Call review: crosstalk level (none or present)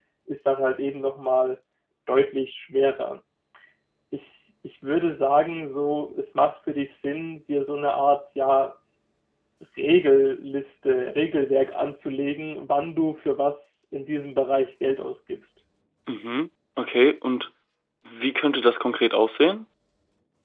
none